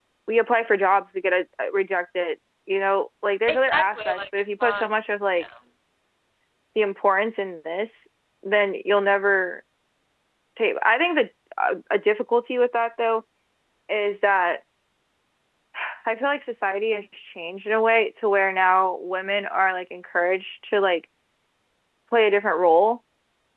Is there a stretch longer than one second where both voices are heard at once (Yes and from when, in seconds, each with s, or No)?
Yes, from 3.5 s